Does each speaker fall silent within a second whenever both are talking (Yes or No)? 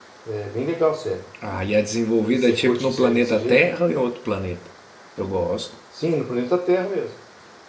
No